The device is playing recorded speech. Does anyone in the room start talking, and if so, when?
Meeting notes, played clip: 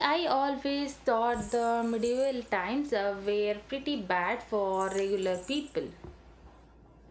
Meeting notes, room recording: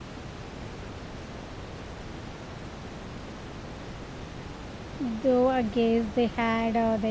5.0 s

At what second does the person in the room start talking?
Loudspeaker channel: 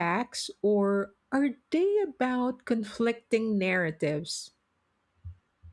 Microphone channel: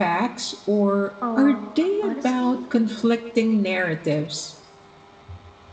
1.2 s

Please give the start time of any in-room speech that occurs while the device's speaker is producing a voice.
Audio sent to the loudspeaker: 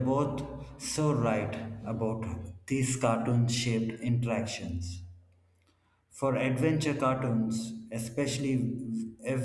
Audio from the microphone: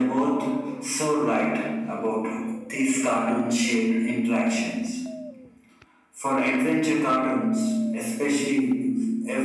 none

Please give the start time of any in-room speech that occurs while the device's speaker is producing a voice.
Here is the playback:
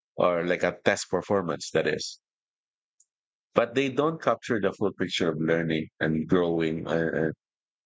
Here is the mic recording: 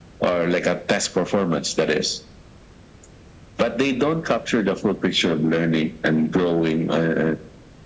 none

